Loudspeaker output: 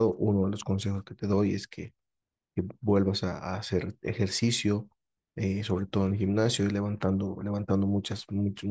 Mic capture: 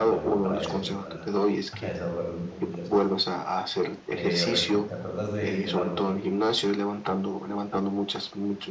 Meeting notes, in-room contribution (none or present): present